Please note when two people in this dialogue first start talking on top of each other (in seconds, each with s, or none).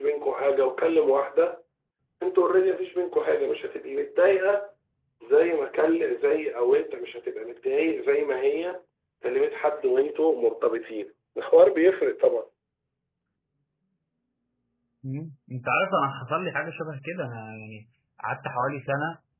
none